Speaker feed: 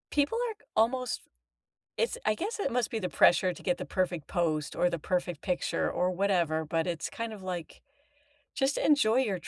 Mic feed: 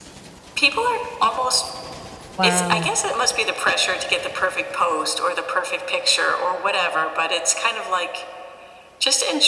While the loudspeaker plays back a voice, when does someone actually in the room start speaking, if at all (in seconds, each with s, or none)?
2.4 s